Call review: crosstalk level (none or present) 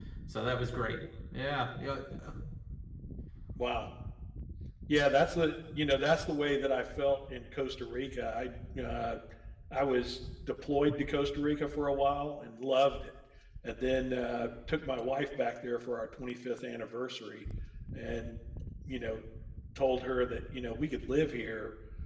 none